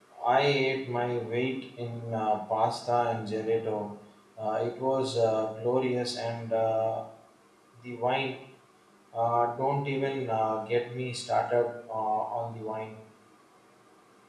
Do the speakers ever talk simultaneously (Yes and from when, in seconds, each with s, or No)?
No